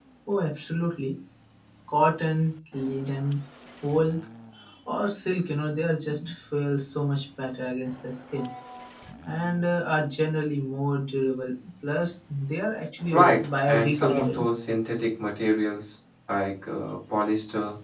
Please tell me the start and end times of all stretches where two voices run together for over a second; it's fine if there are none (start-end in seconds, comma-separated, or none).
13.1-14.4